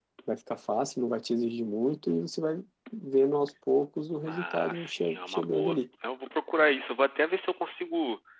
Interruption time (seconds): 4.2 s

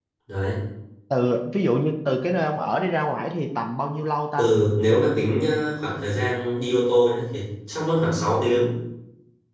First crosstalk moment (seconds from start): none

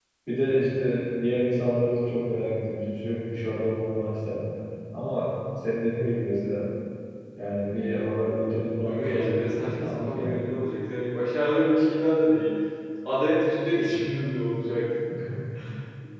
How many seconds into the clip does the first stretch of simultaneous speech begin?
8.8 s

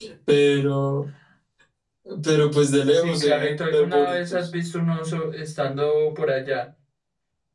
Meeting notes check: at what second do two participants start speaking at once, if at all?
2.9 s

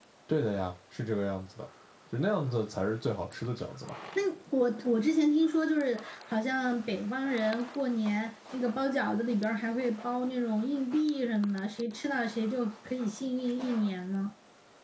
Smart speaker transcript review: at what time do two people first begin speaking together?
none

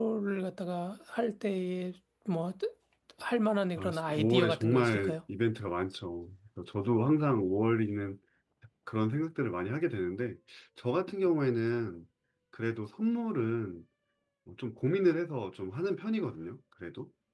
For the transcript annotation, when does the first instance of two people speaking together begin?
3.8 s

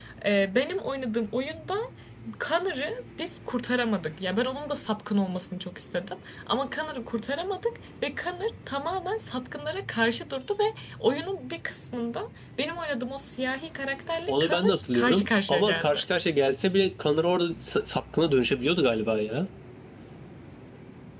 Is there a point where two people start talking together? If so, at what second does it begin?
14.3 s

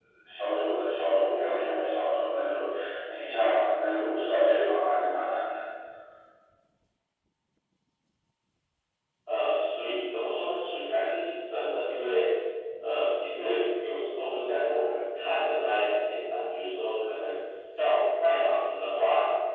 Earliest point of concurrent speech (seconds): none

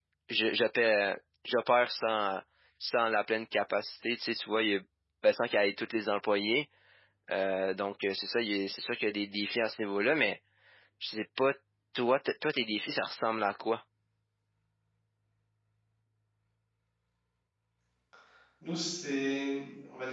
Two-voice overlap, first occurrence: none

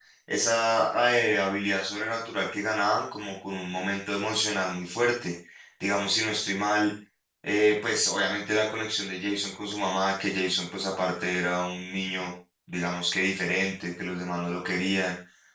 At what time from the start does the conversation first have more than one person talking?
none

